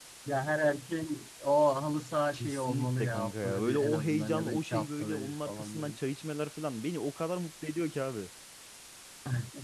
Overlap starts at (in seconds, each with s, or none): 2.3 s